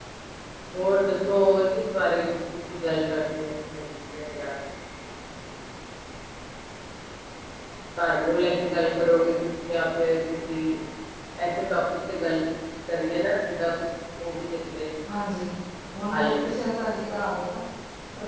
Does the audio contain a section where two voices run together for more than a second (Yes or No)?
No